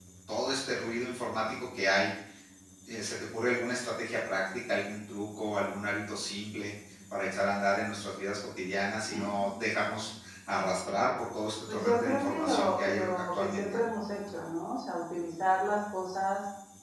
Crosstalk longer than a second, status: present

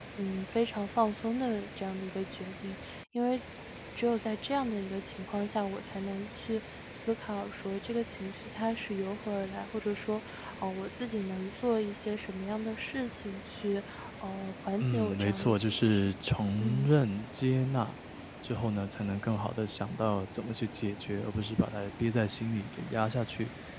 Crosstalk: present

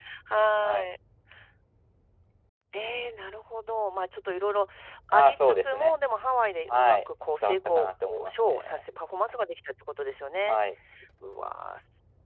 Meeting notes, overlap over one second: present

